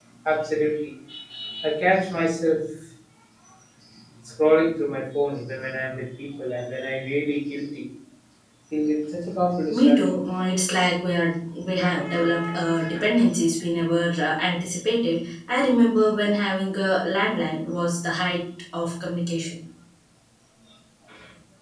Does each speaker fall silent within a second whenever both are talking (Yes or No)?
Yes